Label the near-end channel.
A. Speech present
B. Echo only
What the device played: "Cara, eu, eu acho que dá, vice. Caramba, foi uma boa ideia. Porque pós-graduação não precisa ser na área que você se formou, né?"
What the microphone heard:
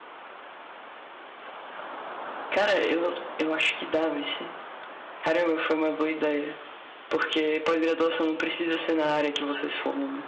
B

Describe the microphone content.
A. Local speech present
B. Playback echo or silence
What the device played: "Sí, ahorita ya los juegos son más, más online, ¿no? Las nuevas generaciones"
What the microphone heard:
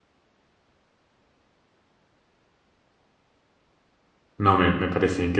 A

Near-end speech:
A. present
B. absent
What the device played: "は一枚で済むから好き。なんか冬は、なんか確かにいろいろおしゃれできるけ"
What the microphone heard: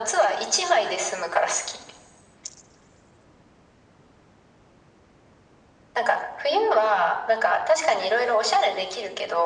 B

